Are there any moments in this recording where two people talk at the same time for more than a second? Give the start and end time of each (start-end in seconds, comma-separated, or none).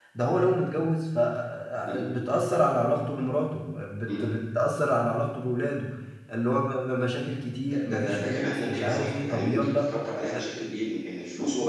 7.8-9.9